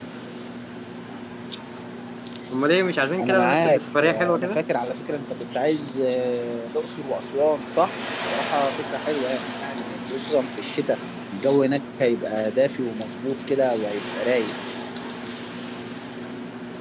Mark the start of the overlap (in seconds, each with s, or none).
3.2 s